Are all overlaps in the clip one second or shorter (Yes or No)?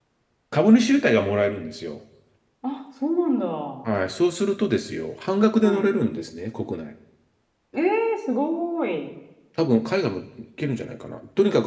Yes